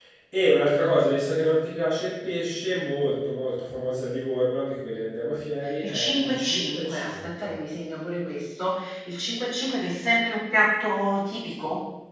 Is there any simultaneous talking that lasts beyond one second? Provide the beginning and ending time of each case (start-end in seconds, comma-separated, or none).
5.9-7.5